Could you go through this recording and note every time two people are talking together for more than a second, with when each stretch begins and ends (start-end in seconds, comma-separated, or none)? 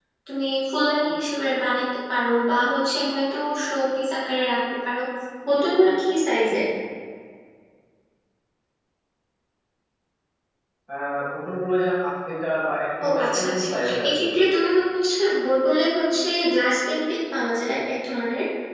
13.0-14.2